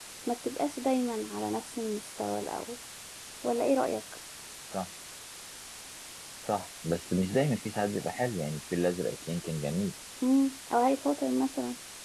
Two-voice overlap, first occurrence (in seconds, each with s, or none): none